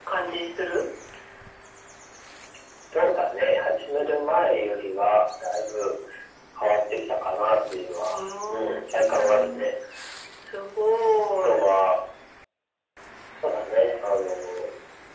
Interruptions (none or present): present